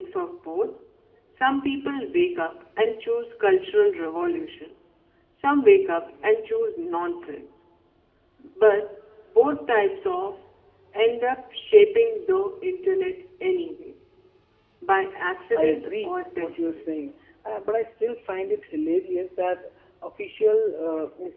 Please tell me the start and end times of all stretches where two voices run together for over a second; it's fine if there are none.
15.5-16.9

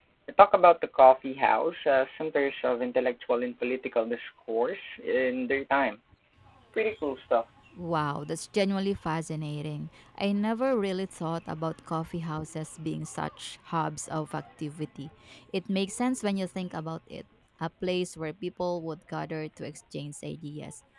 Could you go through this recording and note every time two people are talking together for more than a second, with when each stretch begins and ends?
none

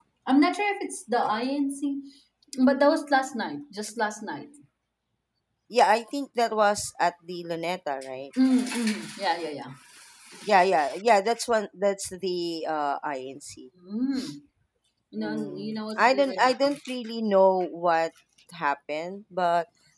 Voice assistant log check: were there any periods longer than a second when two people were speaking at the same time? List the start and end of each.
15.2-16.7

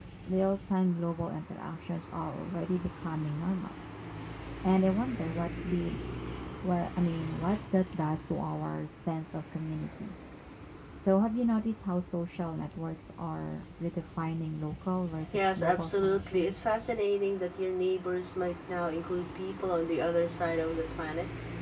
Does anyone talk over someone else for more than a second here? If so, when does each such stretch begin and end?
15.3-16.6

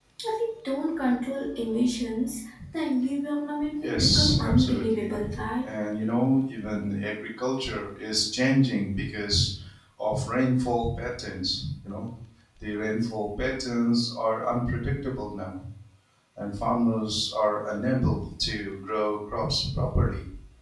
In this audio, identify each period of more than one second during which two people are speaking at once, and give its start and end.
3.8-5.2

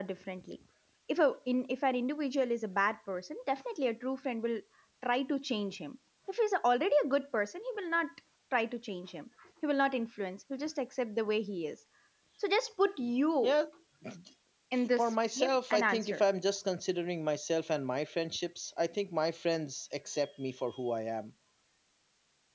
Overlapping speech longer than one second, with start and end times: 14.8-16.2

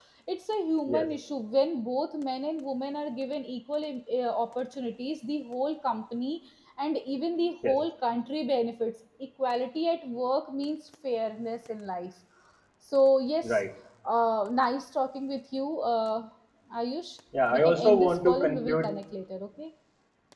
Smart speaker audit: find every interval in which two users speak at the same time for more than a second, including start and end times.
17.5-18.9

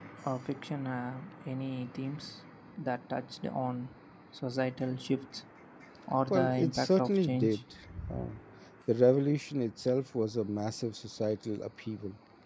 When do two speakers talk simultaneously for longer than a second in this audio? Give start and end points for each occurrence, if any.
6.3-7.6

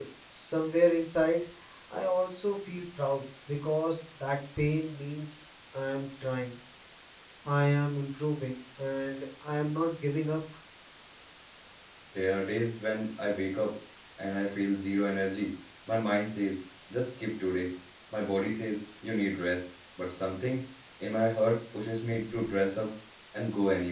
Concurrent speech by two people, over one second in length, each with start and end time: none

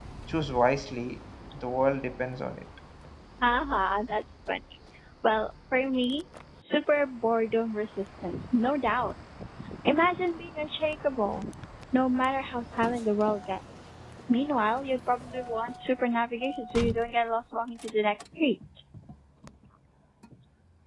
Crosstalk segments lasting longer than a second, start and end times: none

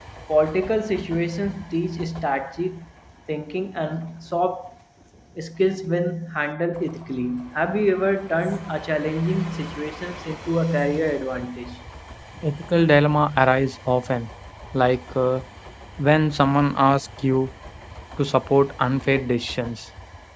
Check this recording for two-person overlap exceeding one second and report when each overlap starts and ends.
none

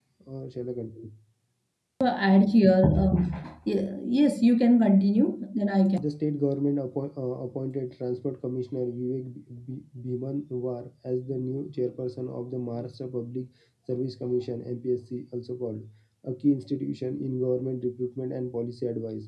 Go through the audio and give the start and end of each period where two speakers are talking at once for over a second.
none

